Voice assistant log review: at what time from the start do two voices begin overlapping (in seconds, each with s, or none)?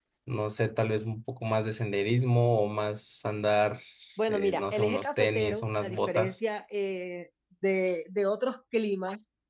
4.3 s